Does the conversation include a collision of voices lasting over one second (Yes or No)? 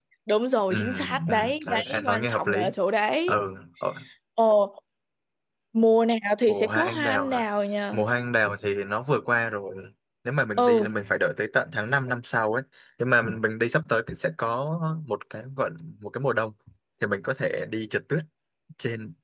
Yes